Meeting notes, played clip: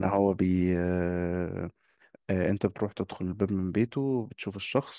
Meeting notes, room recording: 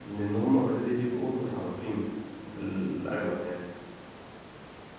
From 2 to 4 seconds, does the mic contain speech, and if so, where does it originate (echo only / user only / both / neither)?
user only